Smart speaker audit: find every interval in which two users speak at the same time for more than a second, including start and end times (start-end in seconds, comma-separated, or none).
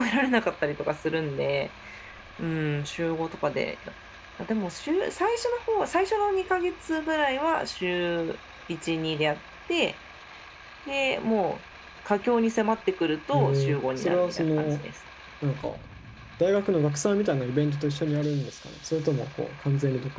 13.3-14.7